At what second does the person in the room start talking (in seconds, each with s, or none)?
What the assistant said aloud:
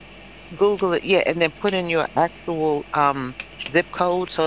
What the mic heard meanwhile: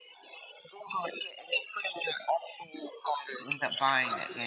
3.5 s